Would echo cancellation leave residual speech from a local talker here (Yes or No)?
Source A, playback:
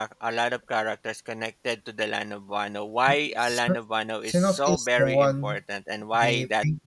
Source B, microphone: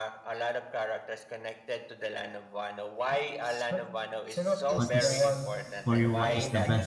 Yes